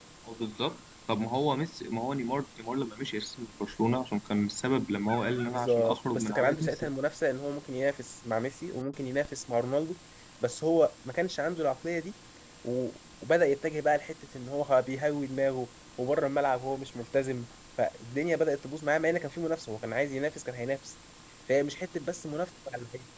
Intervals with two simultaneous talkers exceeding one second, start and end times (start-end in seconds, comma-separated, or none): 5.5-6.9